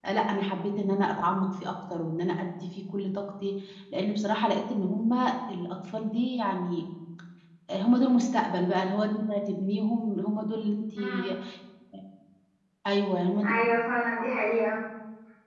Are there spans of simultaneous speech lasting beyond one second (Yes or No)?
No